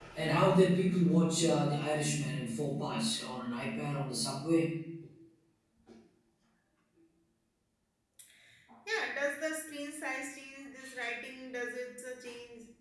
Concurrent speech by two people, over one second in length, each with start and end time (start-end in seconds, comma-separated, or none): none